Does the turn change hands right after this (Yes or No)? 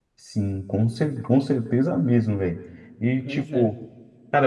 No